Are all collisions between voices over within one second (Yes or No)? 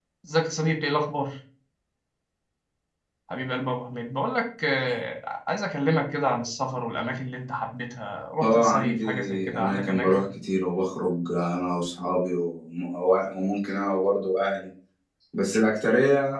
No